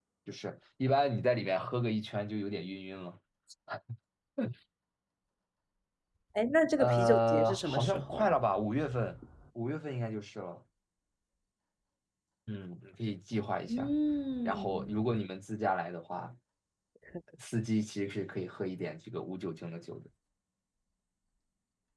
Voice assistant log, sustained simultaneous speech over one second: present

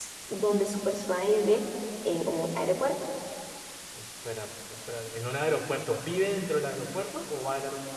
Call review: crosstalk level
none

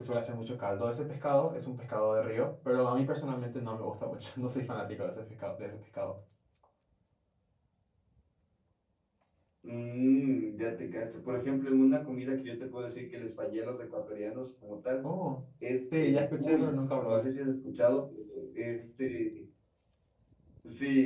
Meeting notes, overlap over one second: present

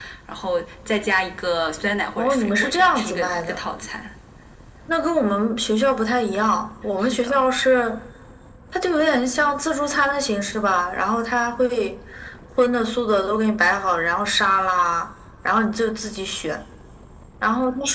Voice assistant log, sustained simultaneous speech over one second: present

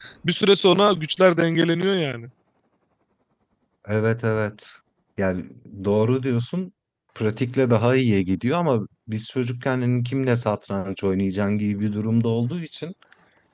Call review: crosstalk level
none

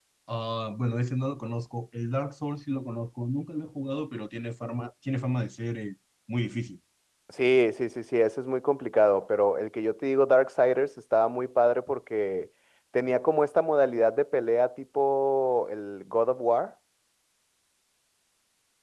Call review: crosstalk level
none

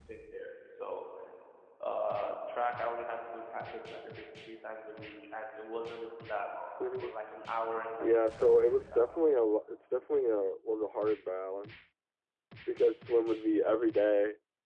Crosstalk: present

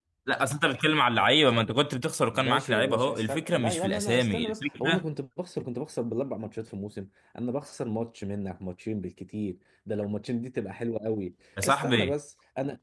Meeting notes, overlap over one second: present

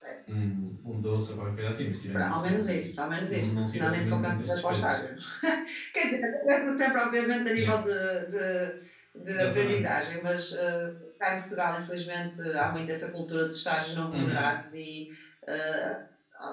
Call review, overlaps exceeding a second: present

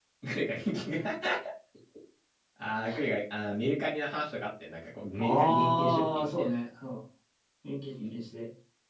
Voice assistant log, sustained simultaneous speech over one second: present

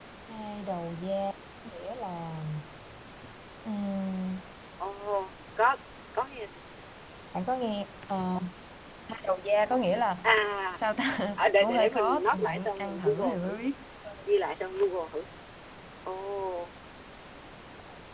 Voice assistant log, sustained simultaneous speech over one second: present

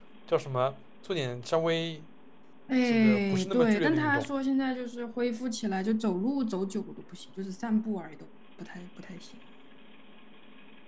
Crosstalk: present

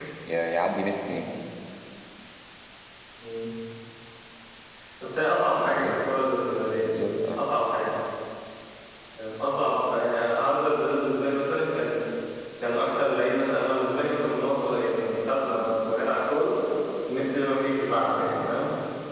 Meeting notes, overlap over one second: none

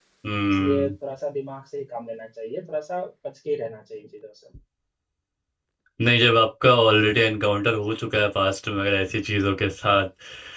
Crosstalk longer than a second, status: none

